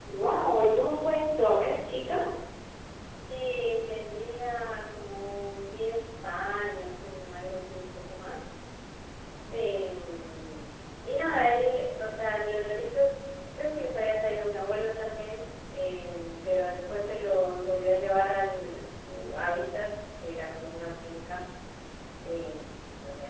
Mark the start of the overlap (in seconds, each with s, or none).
none